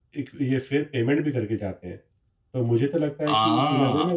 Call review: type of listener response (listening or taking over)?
listening